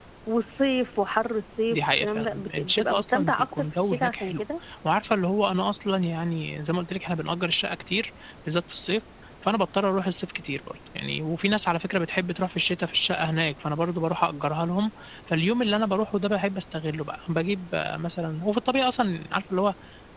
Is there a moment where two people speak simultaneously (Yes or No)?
Yes